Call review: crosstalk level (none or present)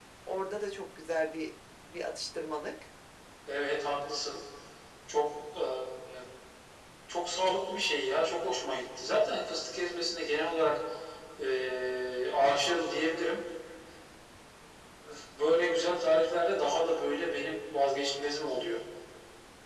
none